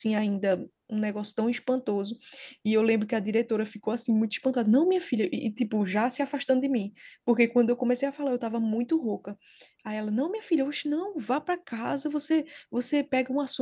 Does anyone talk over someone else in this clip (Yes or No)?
No